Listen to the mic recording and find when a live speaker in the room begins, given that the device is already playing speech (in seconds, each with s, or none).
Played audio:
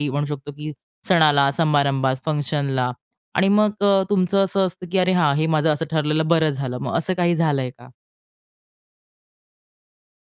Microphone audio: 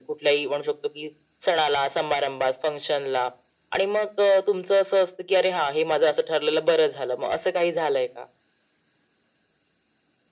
none